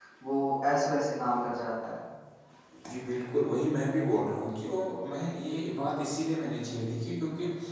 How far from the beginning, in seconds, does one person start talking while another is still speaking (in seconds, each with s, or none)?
none